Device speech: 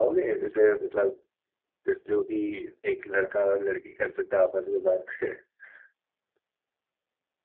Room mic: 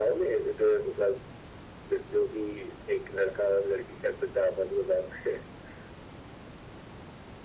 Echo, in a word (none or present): present